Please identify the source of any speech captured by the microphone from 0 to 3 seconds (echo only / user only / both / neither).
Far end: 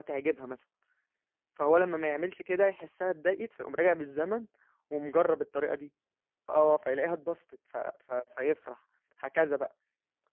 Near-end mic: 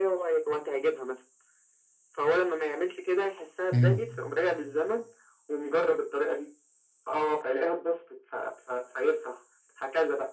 echo only